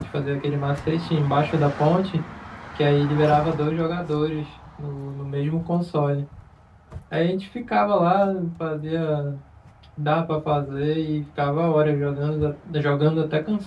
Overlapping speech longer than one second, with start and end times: none

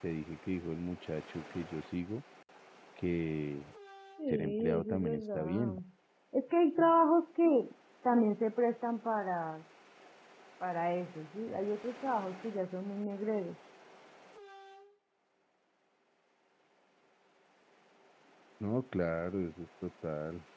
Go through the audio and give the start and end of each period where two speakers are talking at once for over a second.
4.3-5.8

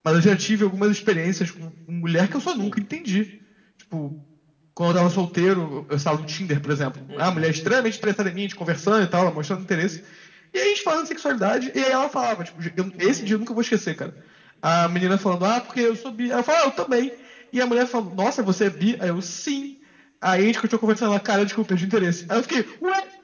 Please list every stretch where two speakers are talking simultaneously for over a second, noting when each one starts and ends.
none

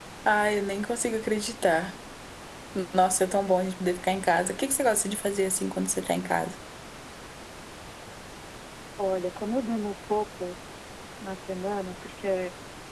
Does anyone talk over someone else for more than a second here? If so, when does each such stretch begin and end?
none

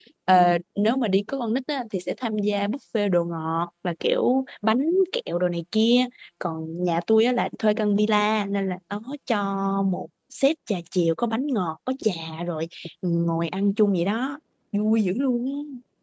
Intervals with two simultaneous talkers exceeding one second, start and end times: none

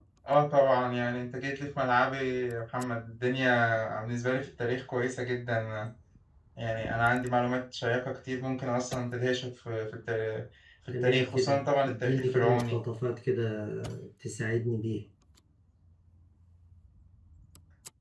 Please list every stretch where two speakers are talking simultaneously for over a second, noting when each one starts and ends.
11.0-12.8

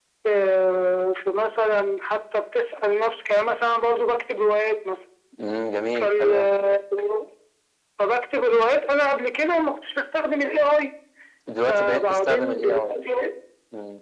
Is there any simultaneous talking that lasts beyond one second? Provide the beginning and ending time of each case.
11.7-12.9

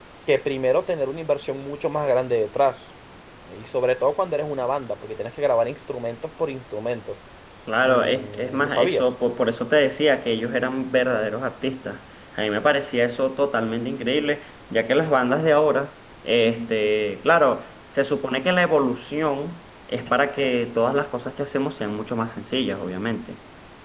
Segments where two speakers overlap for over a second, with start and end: 7.9-9.1

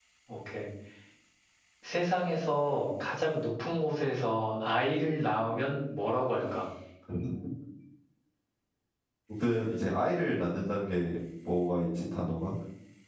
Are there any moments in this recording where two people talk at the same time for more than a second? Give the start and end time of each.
none

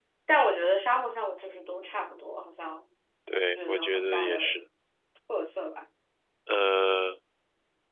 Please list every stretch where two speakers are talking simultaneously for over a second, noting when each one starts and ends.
3.3-4.5

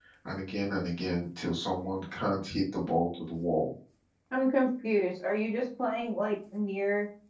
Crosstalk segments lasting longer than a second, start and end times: none

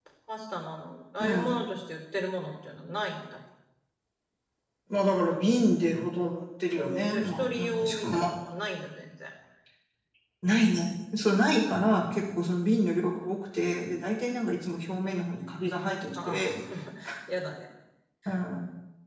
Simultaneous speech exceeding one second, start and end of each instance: 6.8-8.3

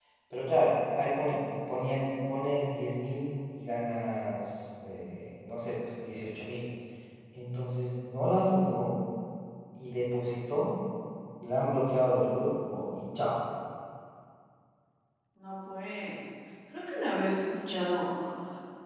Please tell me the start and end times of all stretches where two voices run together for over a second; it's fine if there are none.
none

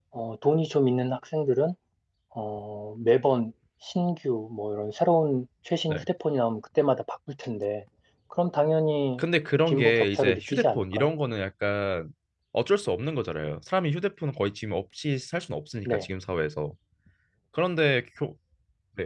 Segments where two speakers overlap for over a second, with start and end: 9.7-11.1

